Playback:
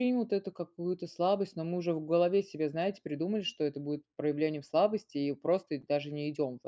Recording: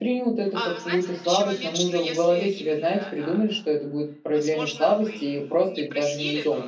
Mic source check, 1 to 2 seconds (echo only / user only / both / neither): both